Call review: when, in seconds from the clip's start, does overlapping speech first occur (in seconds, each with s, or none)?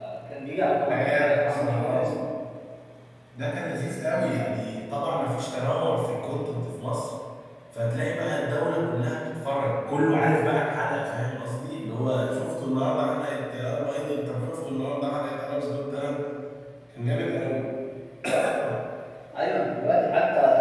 0.9 s